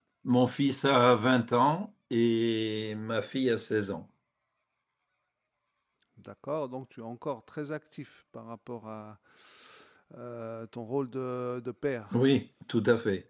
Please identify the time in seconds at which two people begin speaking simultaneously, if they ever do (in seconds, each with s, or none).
none